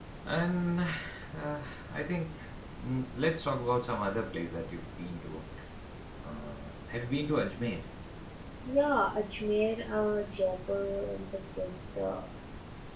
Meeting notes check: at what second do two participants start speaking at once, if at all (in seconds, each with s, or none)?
none